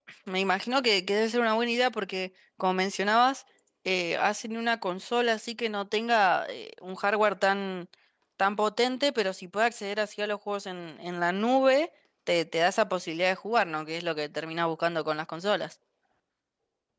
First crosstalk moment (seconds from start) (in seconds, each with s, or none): none